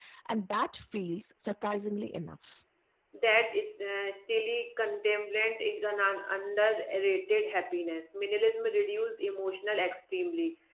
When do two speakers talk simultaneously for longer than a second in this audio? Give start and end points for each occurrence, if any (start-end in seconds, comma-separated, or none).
none